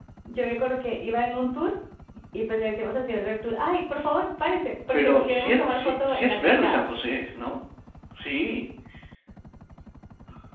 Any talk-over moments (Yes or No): Yes